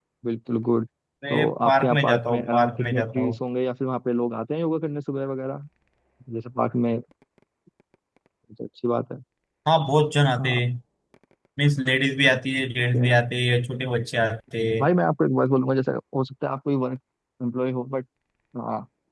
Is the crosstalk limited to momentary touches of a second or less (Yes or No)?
No